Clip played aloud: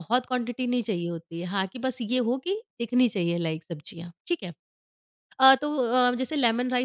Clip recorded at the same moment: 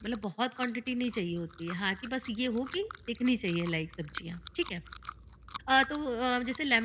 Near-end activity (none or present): none